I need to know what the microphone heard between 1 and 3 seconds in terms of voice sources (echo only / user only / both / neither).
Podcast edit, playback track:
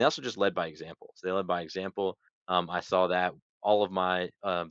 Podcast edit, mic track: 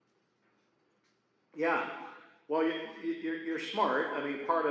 user only